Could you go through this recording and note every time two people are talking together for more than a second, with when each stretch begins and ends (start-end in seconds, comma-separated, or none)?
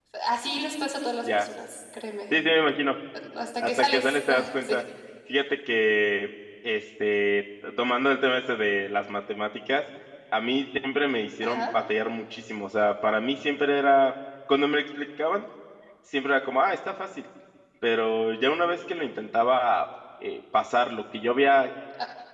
3.6-4.8